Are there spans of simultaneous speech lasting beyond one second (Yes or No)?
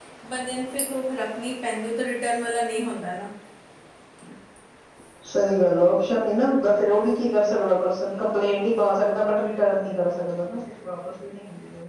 No